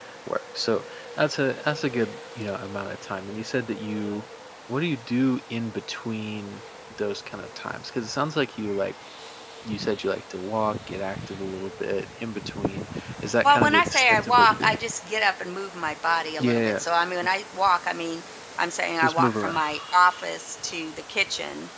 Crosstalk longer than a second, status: present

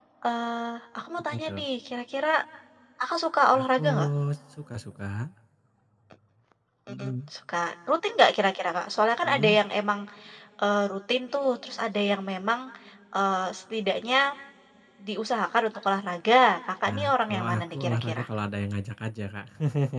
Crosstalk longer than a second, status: present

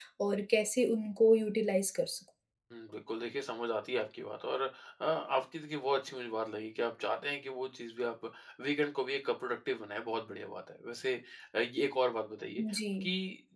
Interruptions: none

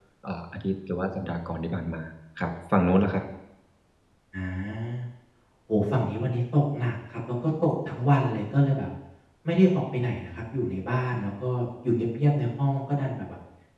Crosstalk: none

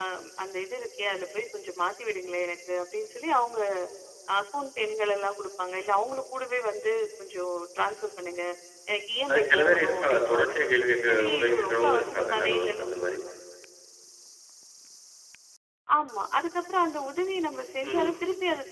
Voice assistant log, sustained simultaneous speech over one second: present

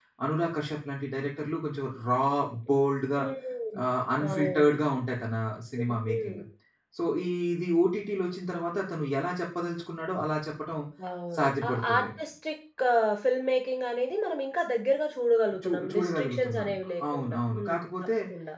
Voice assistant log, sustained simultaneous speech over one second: present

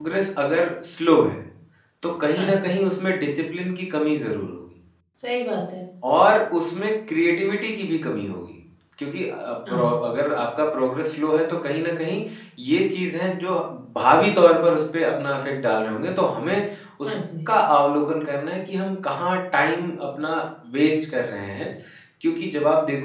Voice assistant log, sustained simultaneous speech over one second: none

